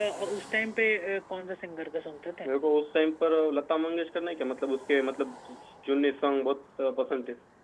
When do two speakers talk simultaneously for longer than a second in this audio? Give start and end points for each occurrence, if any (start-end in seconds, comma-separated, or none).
none